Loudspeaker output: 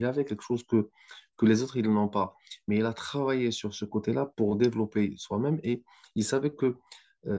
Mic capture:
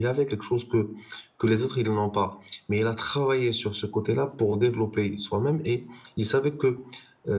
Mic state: echo only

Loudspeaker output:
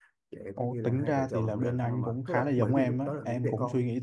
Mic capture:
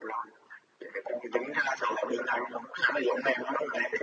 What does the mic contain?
echo only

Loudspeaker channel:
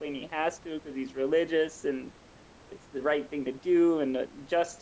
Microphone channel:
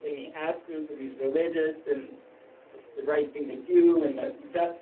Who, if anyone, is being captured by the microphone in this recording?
echo only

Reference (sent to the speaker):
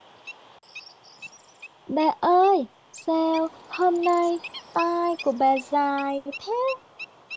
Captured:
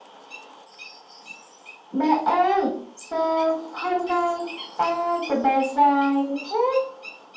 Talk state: echo only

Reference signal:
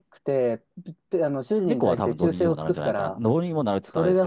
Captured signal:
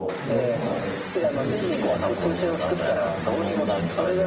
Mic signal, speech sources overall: both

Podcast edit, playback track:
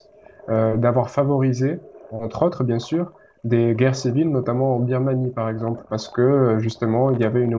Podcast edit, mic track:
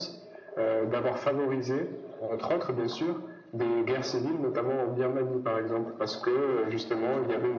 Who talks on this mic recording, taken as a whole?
echo only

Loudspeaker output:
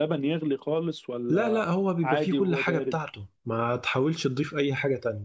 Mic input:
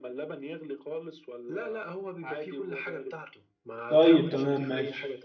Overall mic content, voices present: both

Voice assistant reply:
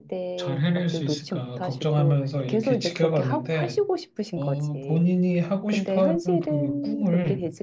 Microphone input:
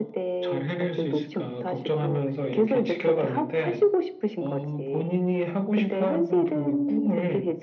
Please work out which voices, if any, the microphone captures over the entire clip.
echo only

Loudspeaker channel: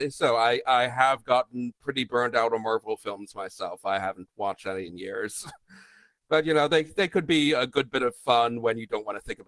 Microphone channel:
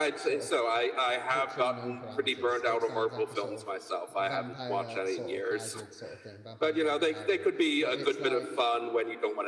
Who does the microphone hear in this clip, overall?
both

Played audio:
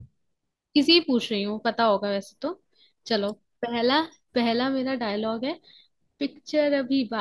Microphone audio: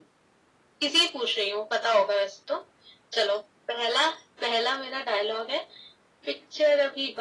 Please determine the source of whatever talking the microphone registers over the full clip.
echo only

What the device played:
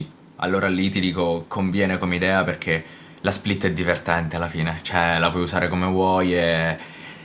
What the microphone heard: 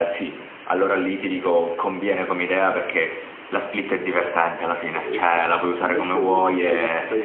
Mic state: both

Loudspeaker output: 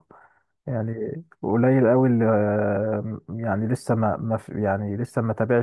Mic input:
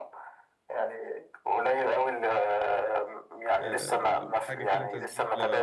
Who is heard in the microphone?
both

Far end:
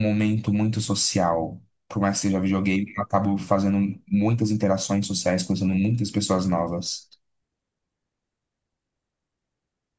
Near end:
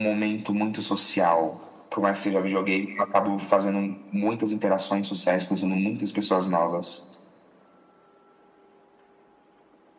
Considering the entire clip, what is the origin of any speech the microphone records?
echo only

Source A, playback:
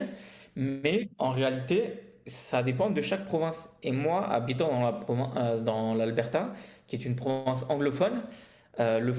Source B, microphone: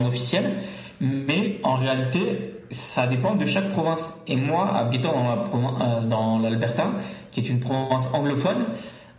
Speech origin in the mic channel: echo only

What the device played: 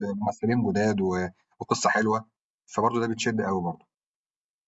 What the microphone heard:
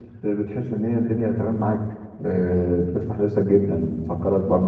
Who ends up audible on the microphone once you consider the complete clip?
user only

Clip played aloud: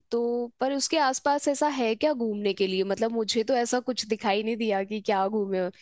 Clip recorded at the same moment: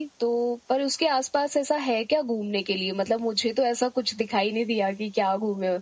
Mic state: echo only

